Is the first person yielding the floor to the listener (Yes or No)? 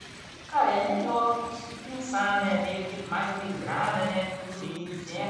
Yes